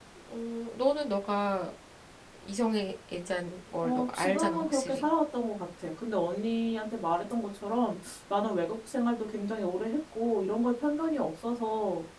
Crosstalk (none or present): present